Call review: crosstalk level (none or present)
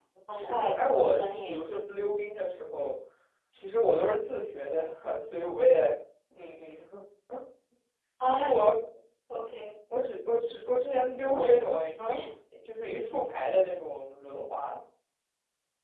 present